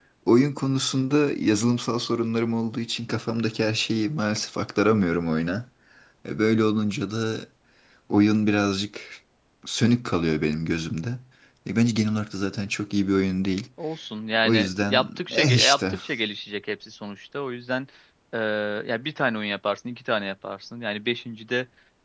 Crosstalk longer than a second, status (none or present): present